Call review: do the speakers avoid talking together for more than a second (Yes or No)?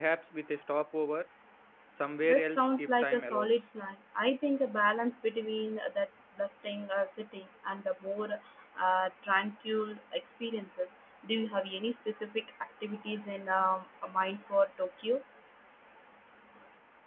No